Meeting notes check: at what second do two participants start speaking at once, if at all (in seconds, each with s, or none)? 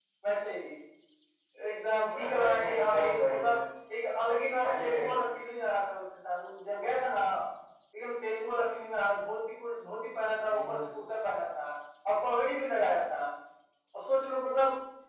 2.2 s